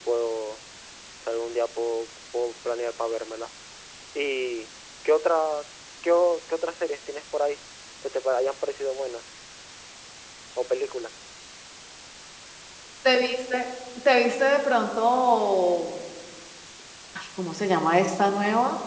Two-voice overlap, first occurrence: none

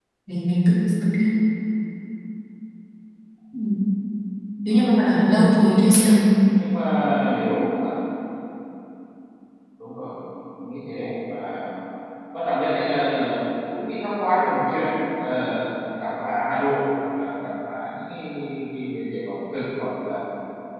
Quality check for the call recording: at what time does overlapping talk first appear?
4.7 s

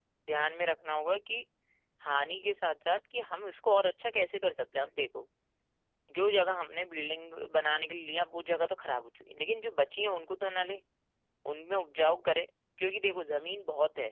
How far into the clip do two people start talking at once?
none

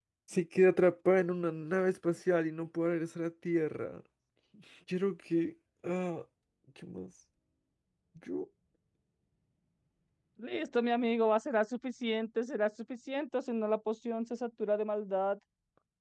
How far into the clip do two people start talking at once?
none

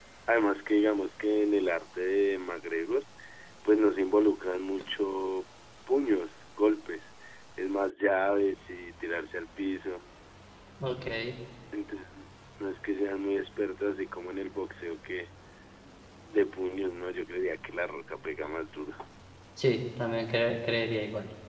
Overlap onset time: none

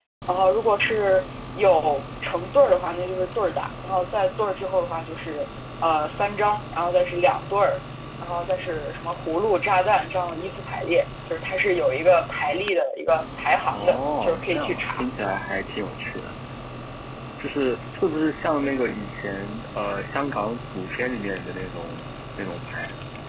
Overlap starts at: 13.6 s

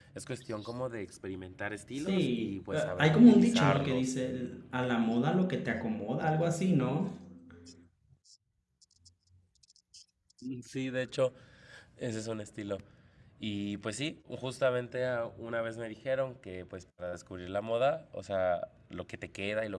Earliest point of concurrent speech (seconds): 2.1 s

